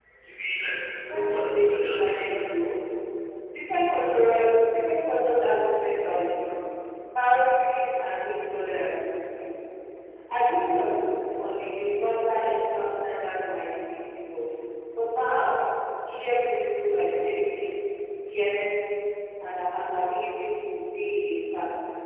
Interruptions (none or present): present